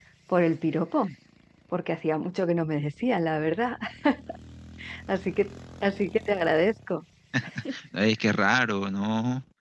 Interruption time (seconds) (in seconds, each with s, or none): none